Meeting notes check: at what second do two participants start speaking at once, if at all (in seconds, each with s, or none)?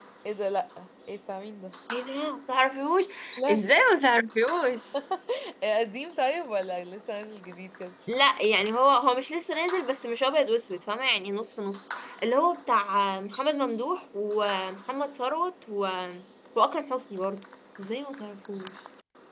none